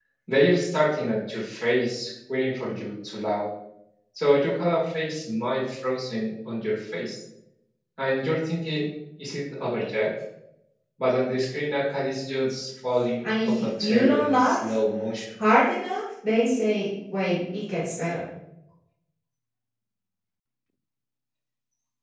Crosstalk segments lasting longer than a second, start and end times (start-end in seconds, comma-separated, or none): 13.2-14.6